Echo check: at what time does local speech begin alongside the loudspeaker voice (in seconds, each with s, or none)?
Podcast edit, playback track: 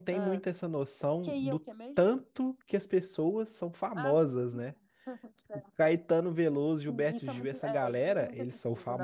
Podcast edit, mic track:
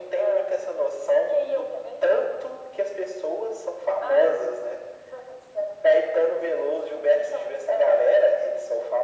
none